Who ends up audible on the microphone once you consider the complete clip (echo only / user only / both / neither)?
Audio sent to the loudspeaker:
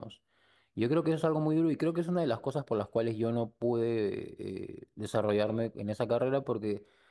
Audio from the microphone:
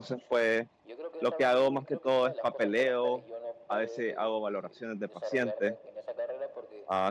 both